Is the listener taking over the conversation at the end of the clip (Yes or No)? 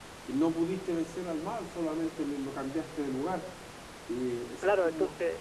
Yes